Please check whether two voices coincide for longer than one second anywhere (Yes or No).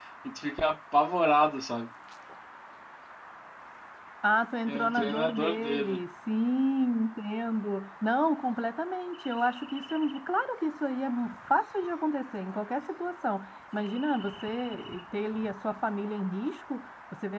Yes